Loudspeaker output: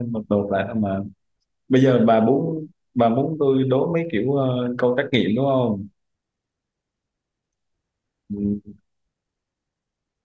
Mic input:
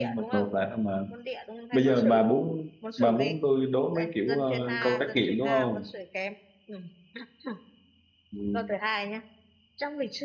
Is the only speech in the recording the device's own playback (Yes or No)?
No